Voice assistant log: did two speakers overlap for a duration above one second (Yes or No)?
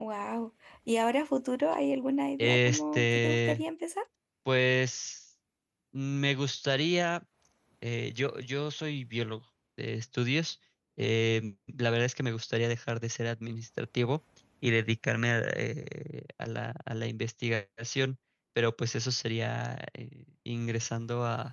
Yes